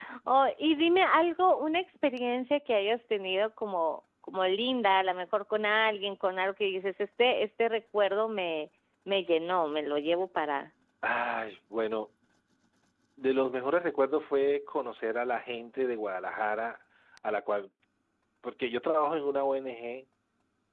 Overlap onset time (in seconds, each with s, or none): none